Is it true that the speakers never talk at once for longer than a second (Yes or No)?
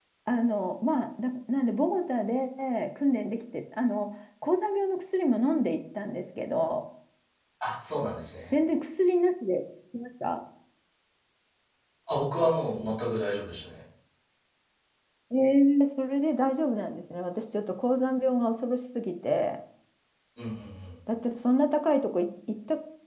Yes